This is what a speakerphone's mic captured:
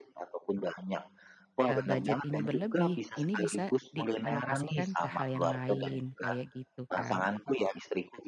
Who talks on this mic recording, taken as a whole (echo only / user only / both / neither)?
both